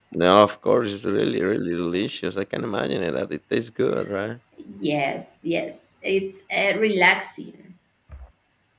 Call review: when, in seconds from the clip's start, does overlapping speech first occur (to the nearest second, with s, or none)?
none